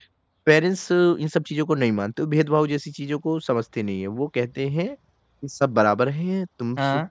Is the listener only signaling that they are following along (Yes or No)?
Yes